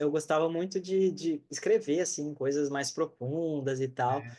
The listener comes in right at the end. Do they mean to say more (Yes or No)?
No